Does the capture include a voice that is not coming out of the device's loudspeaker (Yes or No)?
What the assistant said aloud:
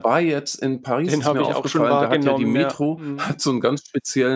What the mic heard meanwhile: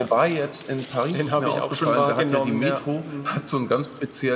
No